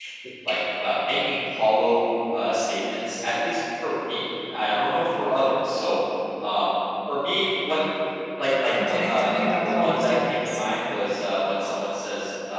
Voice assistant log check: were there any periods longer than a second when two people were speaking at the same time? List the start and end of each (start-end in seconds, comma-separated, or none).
8.8-10.6